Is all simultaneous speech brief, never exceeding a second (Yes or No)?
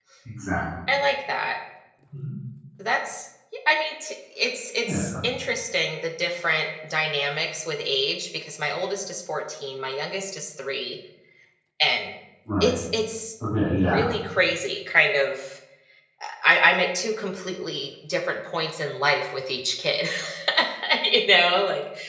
Yes